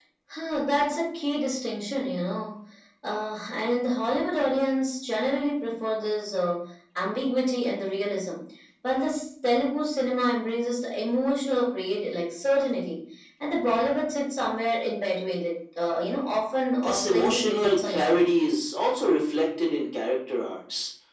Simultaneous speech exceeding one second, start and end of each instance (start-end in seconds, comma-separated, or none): 16.8-18.3